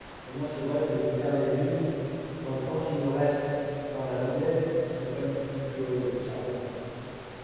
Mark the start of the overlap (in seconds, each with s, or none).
none